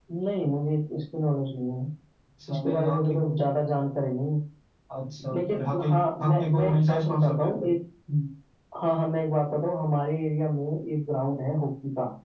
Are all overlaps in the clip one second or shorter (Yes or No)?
No